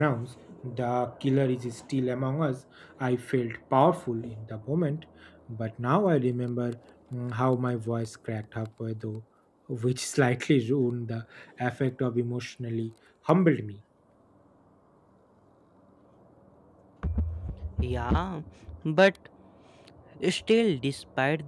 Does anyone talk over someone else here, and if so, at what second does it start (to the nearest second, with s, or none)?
none